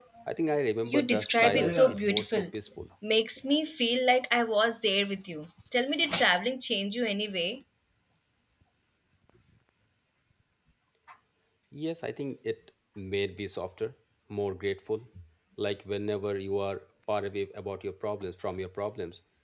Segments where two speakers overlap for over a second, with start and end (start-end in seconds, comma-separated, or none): 0.9-2.5